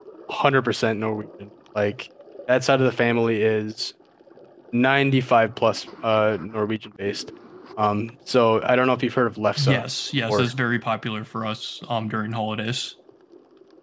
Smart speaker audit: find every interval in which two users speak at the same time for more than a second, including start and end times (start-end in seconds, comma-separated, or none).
none